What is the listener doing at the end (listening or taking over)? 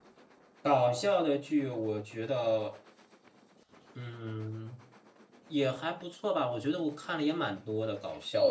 taking over